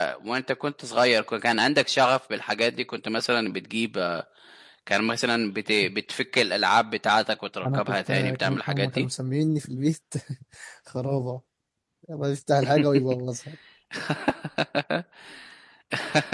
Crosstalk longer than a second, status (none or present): present